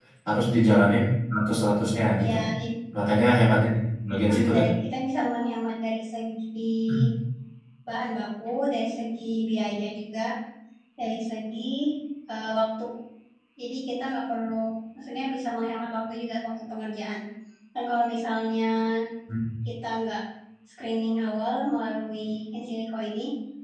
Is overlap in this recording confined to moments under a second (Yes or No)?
Yes